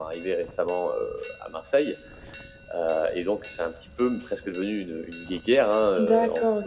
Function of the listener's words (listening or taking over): taking over